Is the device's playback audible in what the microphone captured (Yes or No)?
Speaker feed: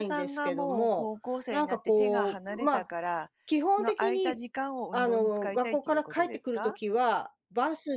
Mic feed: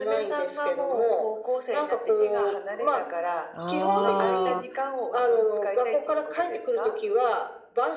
Yes